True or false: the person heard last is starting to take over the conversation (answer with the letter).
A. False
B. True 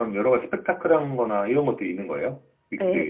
B